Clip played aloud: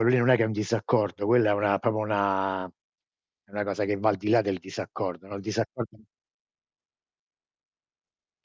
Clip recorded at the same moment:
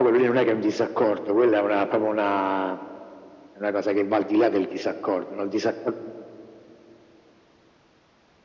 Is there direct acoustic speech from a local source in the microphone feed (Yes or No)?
No